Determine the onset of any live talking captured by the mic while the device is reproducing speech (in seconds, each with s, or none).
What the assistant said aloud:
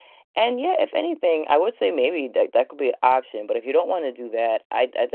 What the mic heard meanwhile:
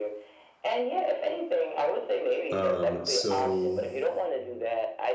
2.5 s